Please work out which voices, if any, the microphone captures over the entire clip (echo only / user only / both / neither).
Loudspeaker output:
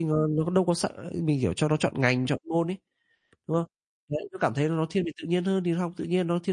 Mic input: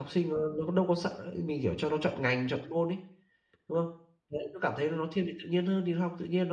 echo only